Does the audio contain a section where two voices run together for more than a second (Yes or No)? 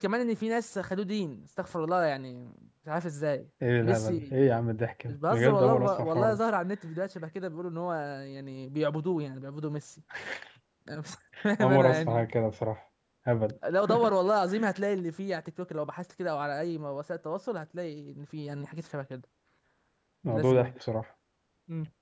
Yes